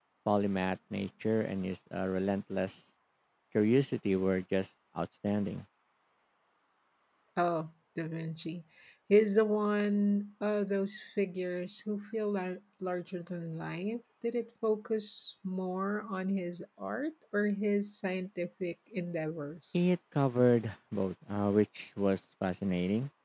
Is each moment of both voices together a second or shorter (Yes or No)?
Yes